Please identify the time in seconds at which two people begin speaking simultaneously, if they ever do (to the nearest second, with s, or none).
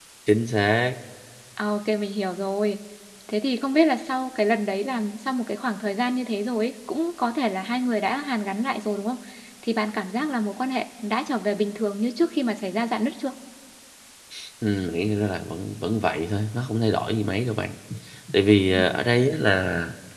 none